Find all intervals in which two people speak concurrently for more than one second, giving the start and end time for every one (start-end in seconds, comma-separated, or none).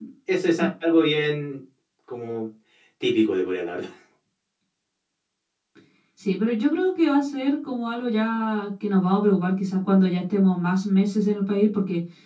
none